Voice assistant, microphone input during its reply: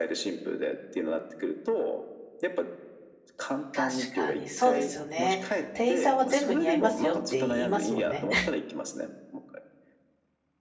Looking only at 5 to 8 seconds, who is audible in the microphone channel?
both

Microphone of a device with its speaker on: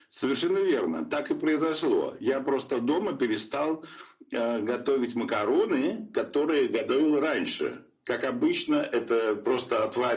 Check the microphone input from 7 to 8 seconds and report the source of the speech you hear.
echo only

